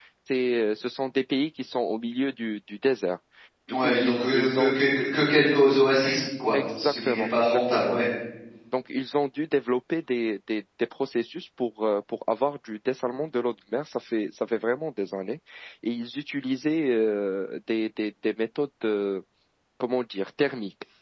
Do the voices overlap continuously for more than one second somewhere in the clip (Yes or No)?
Yes